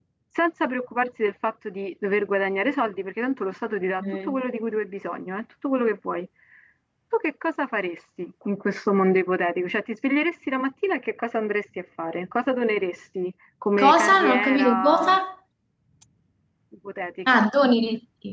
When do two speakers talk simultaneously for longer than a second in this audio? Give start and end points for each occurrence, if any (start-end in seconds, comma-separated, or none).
13.8-15.1